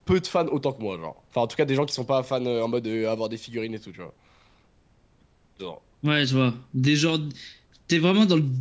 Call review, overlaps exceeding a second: none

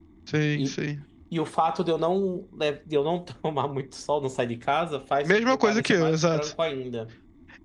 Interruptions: present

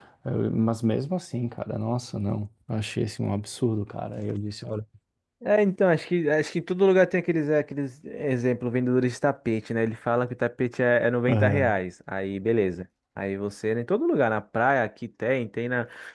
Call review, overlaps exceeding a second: none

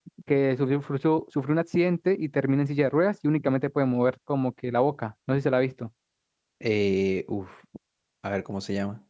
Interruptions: none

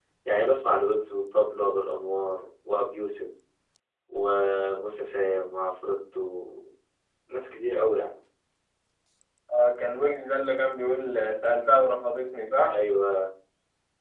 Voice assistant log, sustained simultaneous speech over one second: none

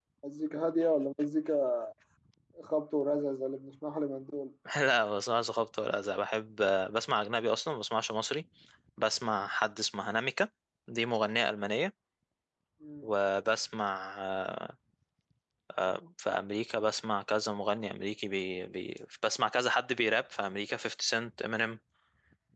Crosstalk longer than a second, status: none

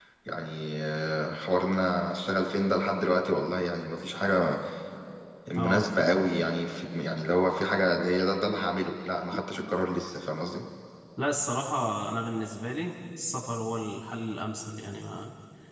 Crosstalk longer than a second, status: none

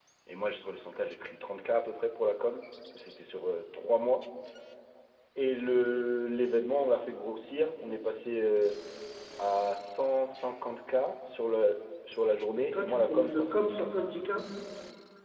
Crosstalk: present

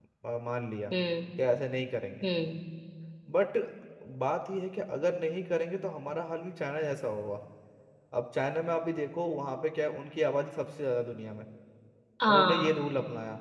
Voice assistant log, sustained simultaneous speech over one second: none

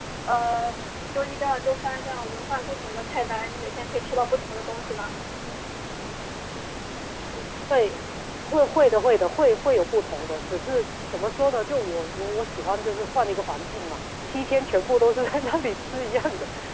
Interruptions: none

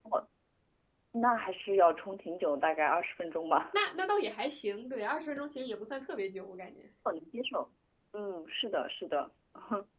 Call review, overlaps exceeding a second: none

